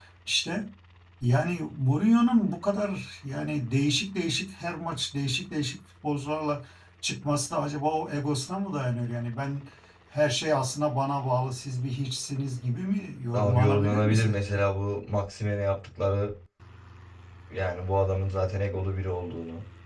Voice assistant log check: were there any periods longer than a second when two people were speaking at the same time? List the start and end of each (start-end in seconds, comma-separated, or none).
13.3-14.6